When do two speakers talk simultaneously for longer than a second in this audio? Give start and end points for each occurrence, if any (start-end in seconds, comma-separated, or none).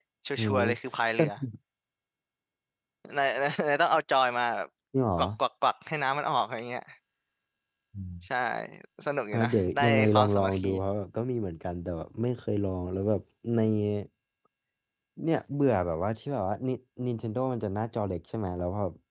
9.3-10.7